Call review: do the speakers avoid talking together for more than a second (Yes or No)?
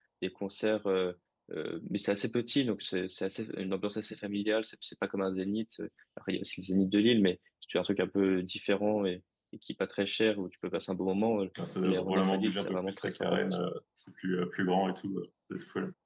No